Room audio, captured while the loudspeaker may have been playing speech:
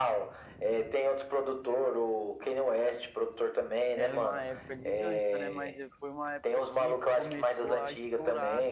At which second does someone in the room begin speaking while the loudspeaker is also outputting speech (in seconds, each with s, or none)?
4.0 s